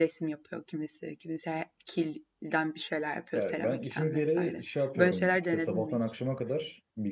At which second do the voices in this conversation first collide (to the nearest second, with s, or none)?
3 s